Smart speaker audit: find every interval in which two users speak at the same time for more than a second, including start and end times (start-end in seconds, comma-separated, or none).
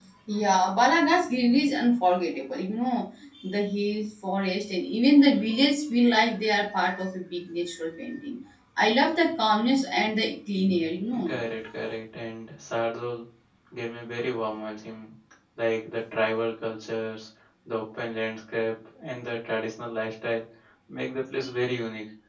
none